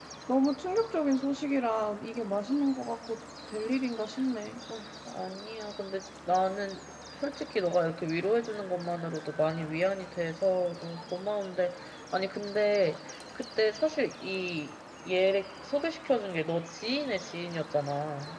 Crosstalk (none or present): none